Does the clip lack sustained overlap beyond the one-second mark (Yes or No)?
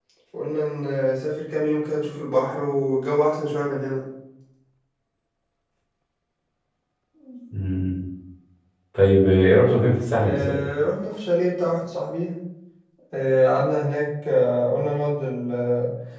Yes